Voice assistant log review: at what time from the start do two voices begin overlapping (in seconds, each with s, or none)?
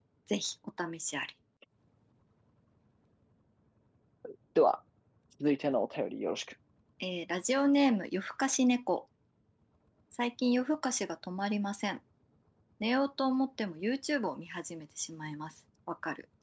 none